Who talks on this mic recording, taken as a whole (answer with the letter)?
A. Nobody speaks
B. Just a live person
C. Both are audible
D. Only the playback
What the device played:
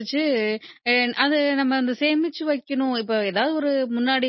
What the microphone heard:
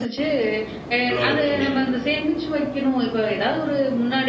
C